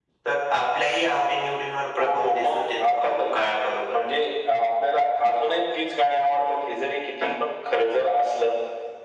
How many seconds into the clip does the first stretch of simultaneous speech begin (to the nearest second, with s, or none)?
2 s